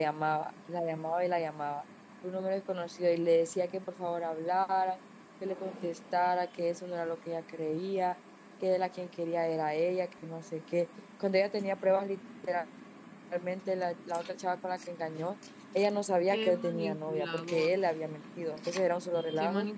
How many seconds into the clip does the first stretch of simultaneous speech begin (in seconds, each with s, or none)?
16.3 s